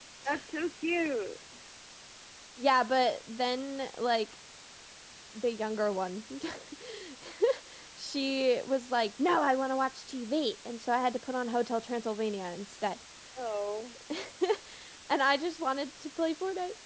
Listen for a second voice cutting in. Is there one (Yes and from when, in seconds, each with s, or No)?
No